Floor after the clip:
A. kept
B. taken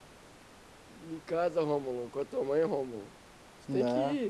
A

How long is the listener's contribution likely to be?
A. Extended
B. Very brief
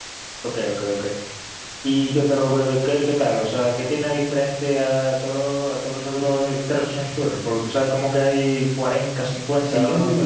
A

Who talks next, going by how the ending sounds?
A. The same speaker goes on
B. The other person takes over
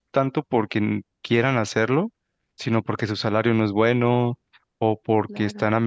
A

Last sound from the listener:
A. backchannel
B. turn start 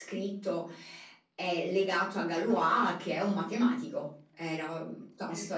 B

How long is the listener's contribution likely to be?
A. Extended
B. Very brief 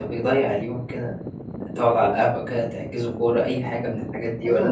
A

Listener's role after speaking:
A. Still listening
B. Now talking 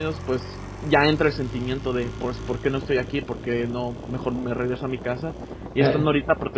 A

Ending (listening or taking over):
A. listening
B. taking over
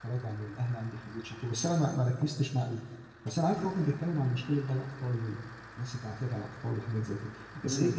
A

